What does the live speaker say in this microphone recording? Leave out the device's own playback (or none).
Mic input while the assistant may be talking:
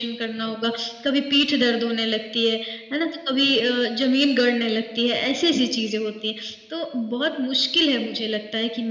none